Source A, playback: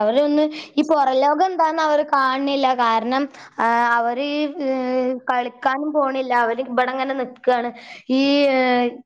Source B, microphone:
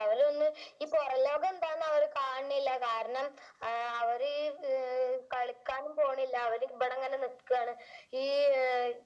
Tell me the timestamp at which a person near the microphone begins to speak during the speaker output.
none

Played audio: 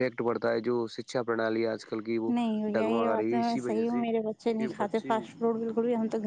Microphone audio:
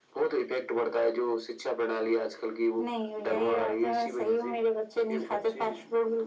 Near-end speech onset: none

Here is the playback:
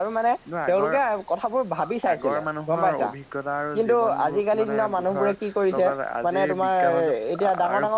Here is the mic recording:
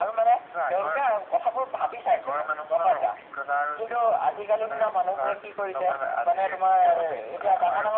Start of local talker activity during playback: none

